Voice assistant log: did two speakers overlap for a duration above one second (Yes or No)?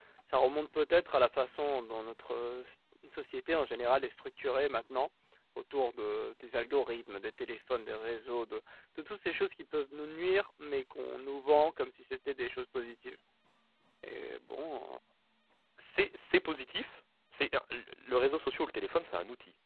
No